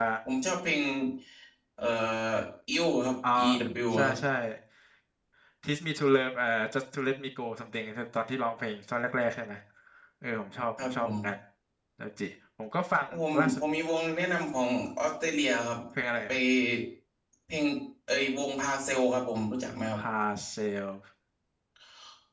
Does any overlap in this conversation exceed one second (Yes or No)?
No